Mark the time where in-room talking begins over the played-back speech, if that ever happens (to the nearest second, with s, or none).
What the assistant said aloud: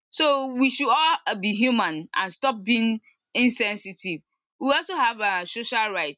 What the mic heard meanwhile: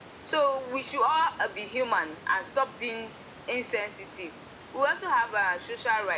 none